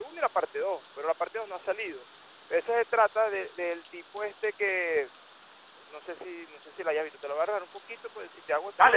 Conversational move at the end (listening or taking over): taking over